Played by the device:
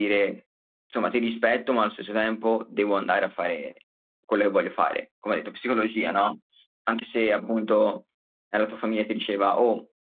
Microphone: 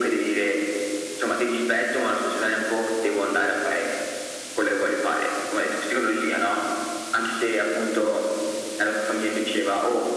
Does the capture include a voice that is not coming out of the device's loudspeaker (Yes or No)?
No